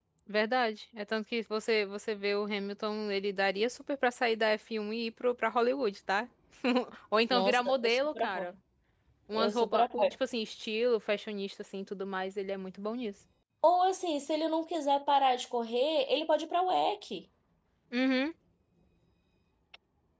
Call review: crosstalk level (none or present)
present